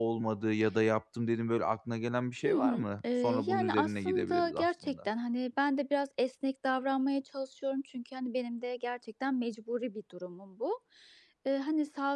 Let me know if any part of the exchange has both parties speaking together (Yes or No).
Yes